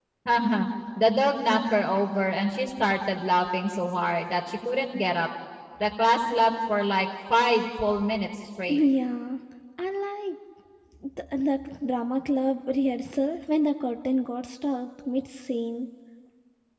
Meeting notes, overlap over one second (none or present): none